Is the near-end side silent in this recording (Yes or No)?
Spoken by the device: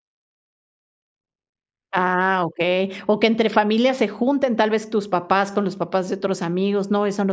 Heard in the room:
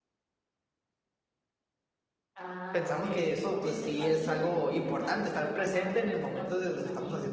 No